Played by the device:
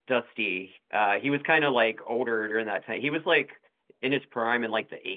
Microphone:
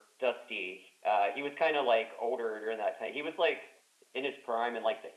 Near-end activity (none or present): none